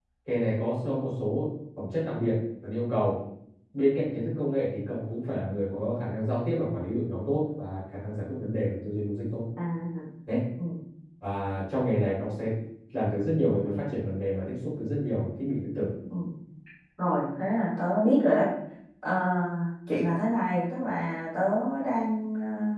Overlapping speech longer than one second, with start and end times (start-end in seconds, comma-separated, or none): none